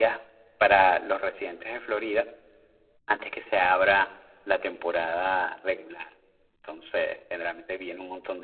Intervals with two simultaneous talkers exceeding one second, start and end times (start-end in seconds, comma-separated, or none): none